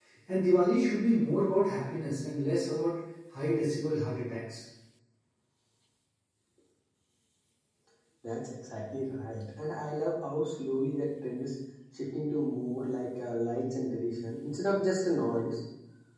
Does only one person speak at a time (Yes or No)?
Yes